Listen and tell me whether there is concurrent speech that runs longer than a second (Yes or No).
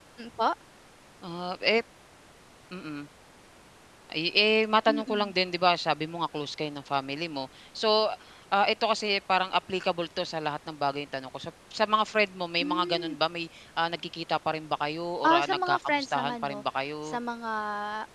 Yes